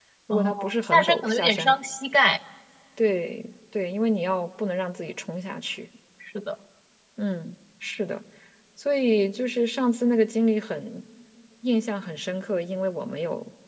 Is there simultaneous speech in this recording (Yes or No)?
Yes